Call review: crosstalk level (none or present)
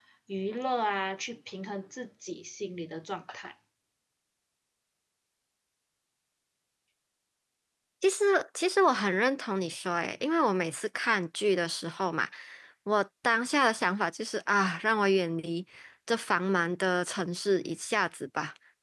none